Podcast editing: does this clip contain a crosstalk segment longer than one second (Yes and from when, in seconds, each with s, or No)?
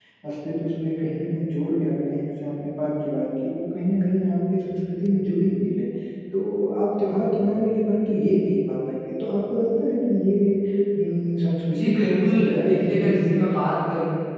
Yes, from 11.8 s